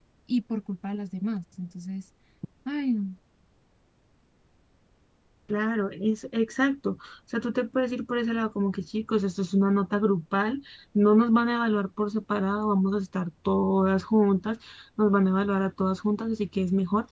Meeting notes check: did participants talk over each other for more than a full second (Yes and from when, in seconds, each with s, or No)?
No